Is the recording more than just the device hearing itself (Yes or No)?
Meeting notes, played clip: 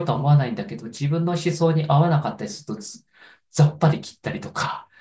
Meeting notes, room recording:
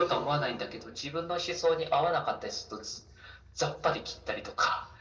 No